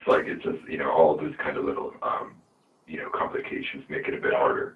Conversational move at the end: taking over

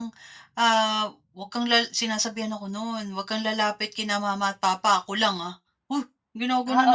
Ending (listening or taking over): taking over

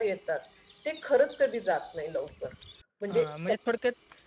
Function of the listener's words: taking over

